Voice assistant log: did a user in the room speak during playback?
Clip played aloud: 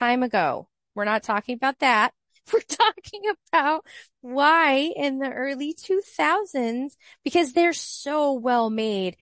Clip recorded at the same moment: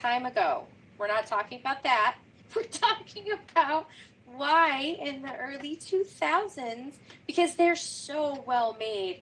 No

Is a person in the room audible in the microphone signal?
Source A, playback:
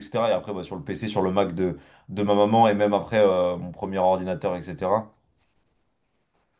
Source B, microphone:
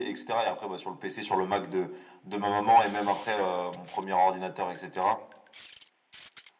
No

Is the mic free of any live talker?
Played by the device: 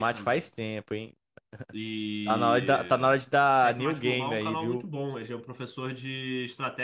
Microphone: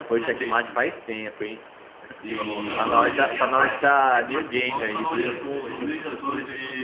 No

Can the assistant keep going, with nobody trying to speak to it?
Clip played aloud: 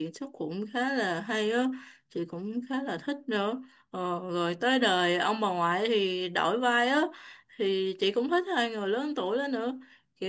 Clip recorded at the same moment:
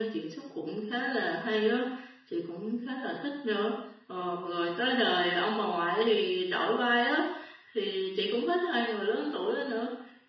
Yes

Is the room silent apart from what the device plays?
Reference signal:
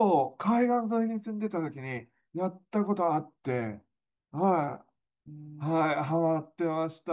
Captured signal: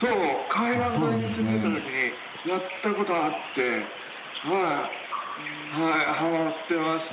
No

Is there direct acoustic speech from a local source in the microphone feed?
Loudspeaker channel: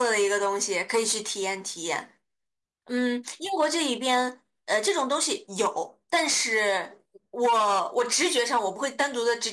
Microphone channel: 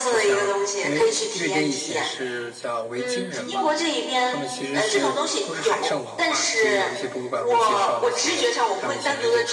Yes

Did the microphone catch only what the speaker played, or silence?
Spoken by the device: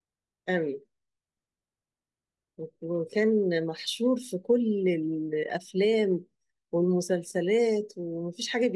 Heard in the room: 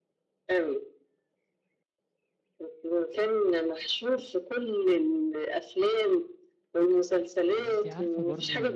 No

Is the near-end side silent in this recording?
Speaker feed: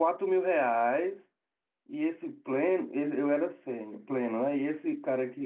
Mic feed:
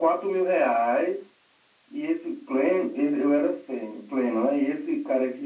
Yes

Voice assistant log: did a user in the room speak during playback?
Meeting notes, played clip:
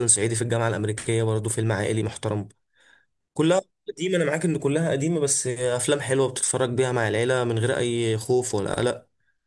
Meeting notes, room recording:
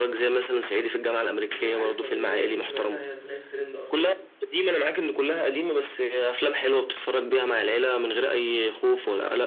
Yes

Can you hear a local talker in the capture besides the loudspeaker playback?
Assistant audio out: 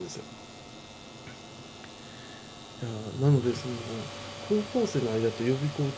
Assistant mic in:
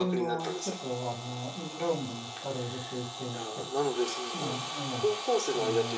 Yes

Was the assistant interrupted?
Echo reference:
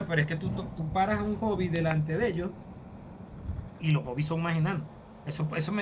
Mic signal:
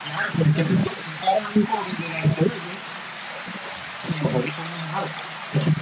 No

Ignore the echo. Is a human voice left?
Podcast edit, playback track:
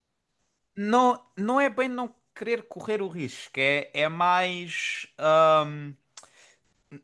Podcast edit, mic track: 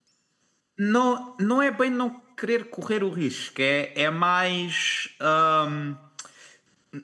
No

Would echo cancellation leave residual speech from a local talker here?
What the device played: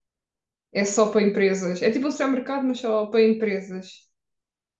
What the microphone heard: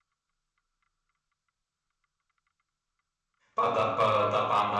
Yes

